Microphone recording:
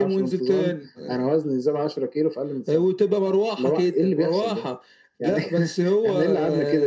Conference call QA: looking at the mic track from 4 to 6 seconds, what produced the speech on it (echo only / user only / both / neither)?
echo only